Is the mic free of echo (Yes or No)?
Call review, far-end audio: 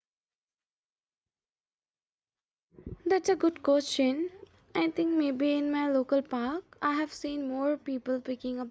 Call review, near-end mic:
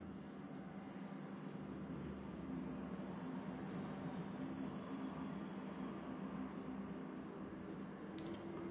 Yes